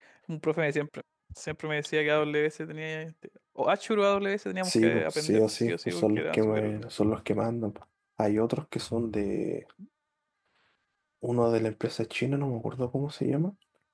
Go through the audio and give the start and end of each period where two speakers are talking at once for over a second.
4.6-6.8

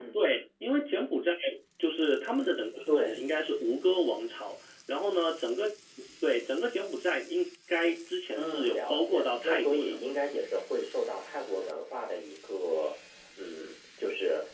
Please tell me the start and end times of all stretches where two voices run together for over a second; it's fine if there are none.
8.3-10.0

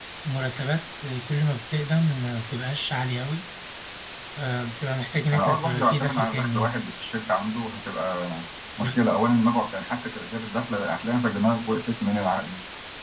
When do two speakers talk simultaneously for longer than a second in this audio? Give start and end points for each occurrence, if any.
5.3-6.7

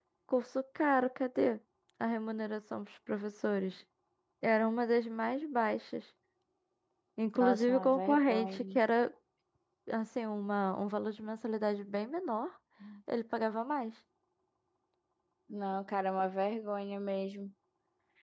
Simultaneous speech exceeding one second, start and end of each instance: 7.4-8.8

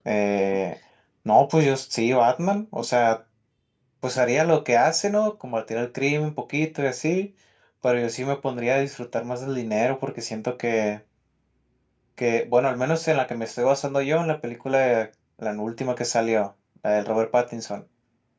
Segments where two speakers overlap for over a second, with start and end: none

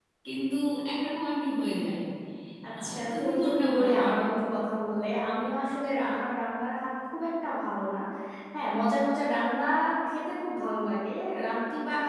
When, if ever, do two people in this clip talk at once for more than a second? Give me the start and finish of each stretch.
2.8-4.2

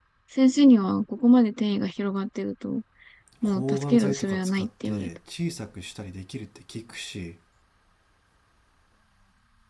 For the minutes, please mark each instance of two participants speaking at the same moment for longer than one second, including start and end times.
3.4-5.1

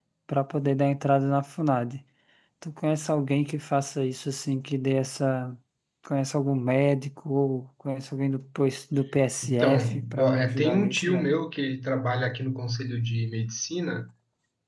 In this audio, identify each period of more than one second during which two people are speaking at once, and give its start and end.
9.4-11.3

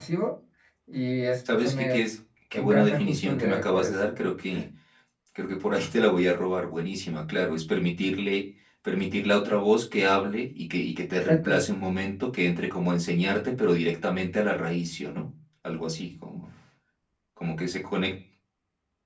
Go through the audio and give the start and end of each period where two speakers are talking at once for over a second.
2.5-4.0

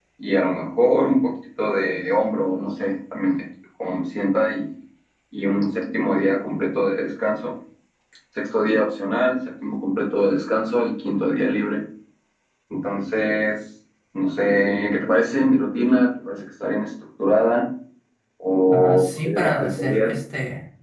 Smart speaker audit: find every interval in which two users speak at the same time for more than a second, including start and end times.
18.7-20.2

